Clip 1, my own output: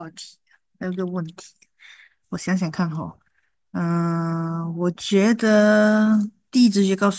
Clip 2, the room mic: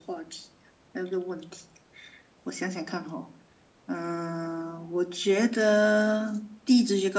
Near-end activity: none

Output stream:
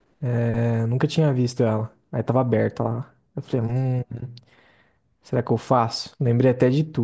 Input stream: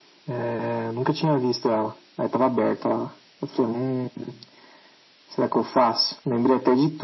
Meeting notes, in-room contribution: none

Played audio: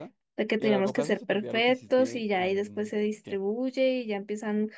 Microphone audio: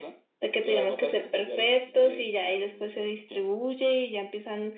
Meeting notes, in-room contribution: none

